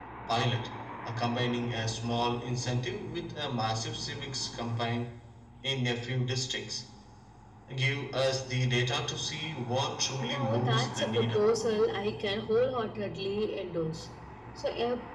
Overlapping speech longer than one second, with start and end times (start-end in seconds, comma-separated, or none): 10.2-11.5